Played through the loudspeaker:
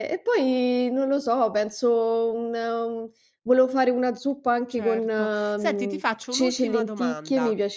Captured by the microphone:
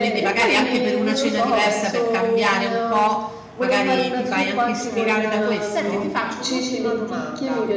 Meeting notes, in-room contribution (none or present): present